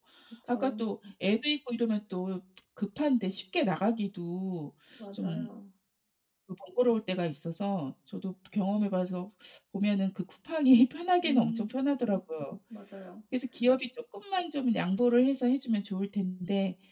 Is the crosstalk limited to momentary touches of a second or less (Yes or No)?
Yes